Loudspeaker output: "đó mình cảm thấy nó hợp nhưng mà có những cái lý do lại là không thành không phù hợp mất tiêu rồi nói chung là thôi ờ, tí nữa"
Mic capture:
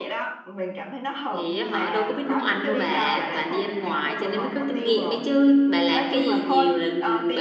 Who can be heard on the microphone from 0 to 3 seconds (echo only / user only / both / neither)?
both